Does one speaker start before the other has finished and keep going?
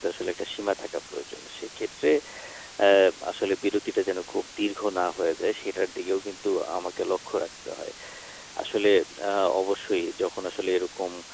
No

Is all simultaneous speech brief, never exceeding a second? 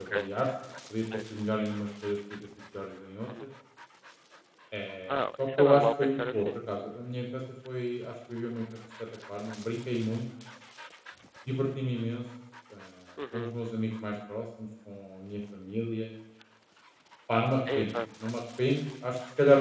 No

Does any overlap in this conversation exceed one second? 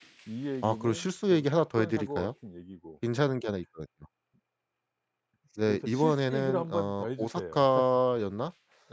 Yes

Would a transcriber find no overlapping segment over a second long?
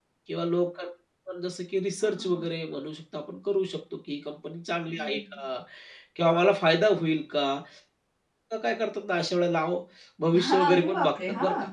No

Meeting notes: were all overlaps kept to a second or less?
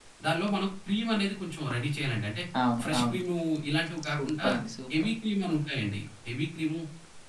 Yes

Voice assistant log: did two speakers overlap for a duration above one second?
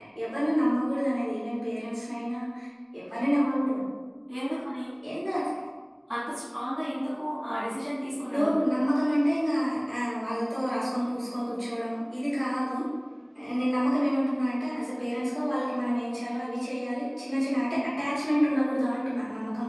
No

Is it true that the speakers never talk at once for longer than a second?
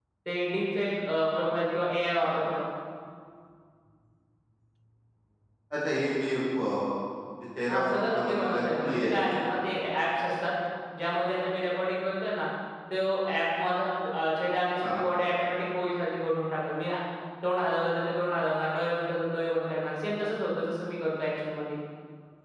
No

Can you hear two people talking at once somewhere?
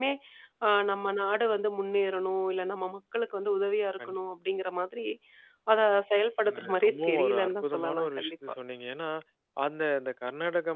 Yes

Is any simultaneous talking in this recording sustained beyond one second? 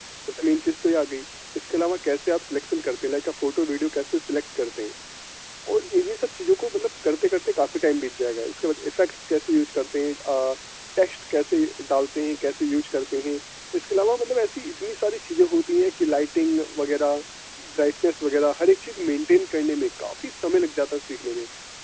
No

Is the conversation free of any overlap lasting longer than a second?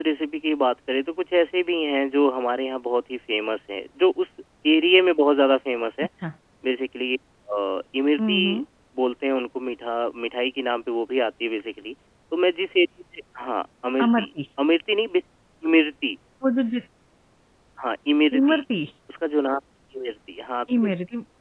Yes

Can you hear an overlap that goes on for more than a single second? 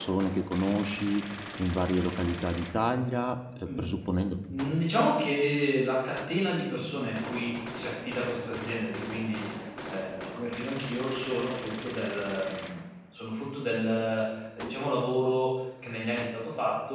No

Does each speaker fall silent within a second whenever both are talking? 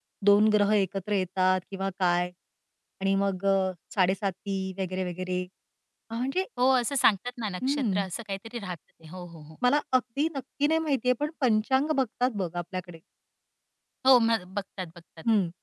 Yes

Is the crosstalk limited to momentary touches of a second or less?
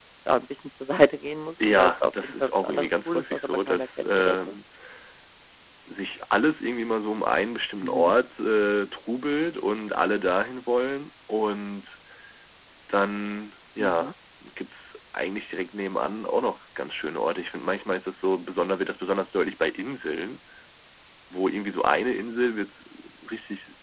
No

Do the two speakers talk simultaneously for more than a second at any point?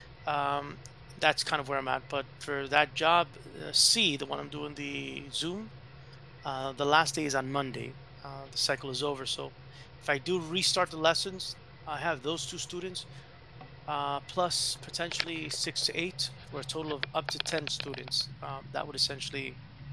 No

